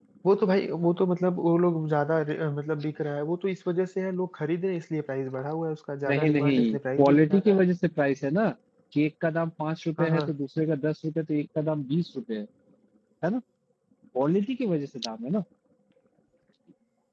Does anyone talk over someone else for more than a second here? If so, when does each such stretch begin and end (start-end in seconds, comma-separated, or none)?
6.1-7.6